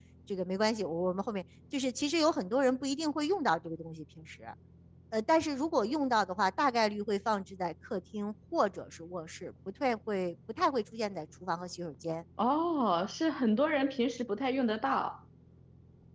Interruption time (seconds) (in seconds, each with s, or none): none